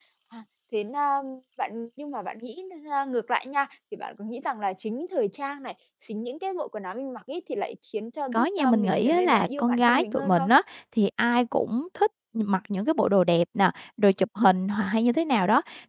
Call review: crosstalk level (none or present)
present